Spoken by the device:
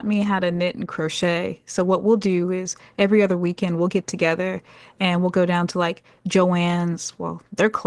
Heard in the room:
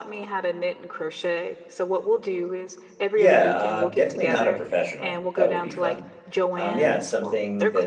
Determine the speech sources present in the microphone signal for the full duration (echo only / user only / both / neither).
both